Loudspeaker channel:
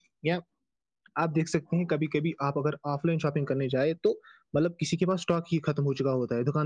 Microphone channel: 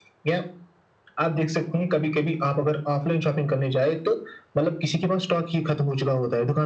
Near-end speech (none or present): none